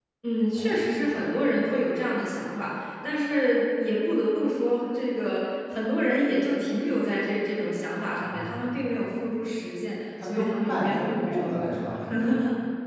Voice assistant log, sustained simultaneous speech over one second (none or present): present